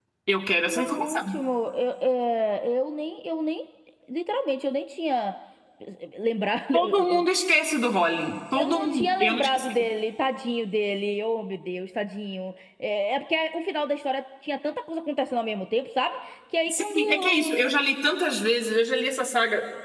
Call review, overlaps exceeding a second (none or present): present